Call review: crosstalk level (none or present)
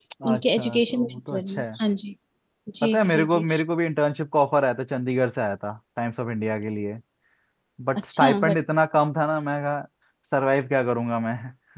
present